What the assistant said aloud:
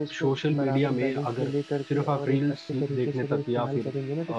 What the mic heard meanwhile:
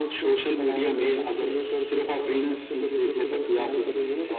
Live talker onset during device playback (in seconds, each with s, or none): none